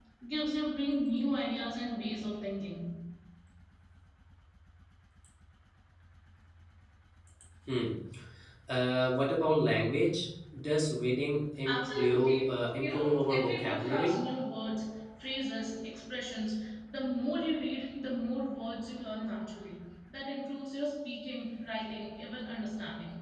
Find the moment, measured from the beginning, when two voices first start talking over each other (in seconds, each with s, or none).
11.7 s